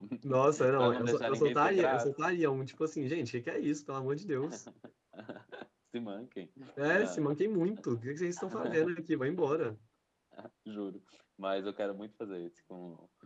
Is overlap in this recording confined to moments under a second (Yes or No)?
No